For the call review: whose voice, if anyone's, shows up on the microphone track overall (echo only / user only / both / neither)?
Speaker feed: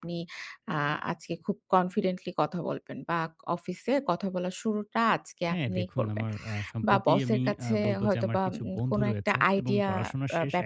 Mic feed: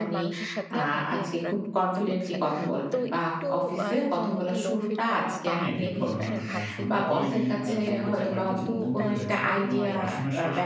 both